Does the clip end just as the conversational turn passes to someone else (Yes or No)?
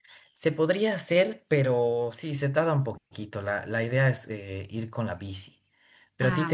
No